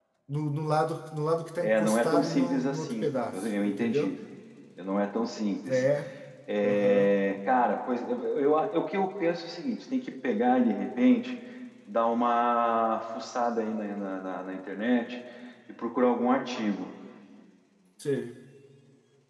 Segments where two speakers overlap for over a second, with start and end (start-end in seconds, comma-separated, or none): 1.6-4.1